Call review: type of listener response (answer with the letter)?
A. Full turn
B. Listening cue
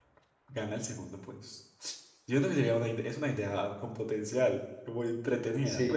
A